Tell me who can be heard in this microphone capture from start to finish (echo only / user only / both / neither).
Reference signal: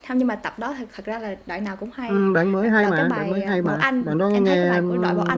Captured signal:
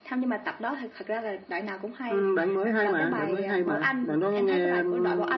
both